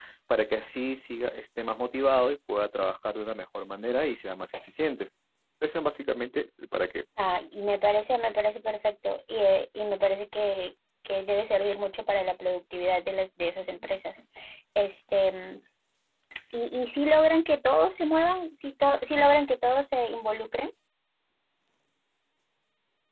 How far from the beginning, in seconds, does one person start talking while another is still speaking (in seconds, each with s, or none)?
none